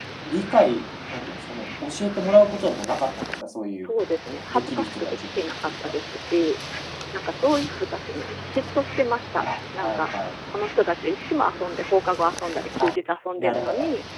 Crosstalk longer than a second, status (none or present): present